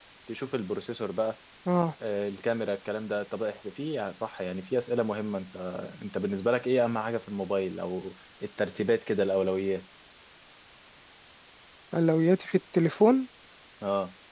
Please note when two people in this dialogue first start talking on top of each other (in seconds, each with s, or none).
none